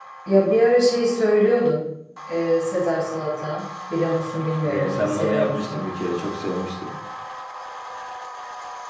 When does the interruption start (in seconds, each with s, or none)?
4.6 s